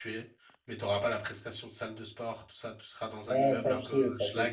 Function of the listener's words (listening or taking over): taking over